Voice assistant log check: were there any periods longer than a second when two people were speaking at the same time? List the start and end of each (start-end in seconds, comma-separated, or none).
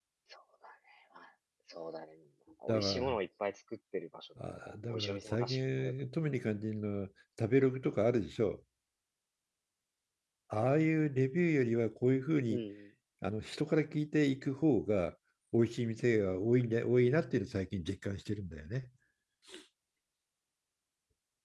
4.6-5.9